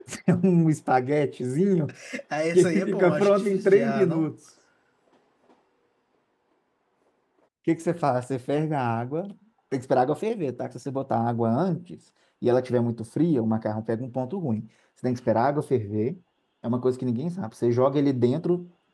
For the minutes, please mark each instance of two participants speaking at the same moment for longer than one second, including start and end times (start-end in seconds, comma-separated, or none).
2.5-4.3